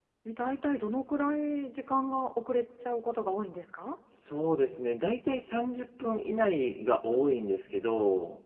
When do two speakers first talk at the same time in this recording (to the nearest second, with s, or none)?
none